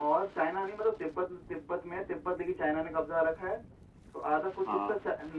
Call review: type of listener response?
listening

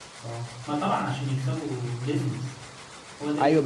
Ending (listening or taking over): taking over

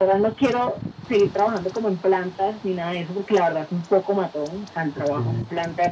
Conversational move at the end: listening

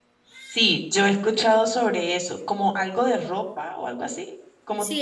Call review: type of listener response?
taking over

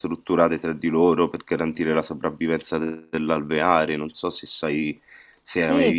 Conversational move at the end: taking over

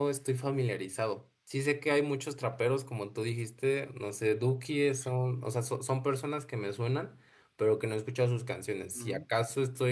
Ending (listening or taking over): listening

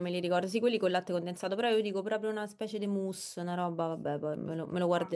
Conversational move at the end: taking over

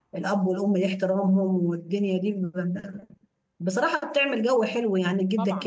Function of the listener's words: listening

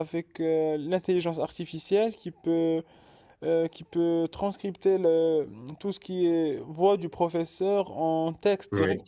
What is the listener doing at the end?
listening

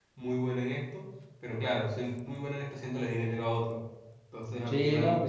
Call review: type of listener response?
taking over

